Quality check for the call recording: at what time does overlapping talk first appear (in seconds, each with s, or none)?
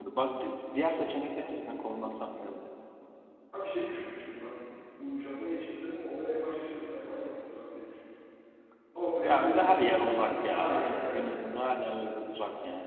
9.2 s